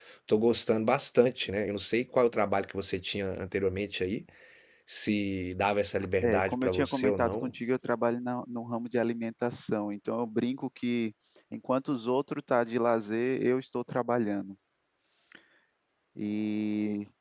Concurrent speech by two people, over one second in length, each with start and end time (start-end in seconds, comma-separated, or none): 6.2-7.5